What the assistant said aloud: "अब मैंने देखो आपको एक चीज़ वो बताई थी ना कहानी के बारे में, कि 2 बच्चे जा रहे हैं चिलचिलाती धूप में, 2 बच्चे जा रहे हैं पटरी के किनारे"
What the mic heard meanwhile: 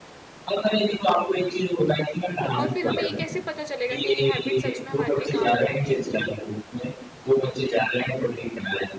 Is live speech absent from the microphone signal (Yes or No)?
No